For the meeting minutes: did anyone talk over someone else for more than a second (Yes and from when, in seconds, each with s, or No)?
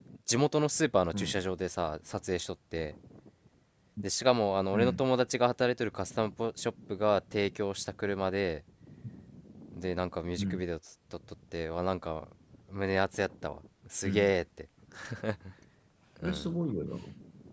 No